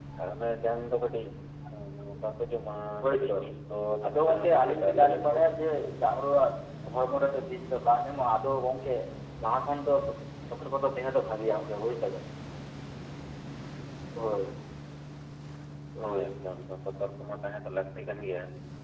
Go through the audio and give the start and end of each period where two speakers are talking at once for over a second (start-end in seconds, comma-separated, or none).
4.0-5.3